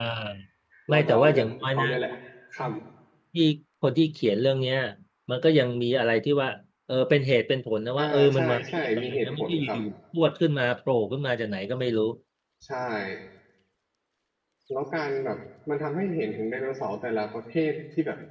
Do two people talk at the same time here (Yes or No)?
Yes